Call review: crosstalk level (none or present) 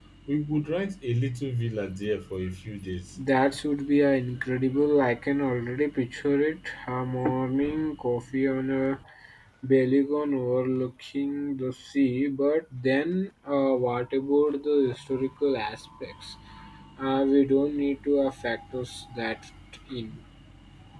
none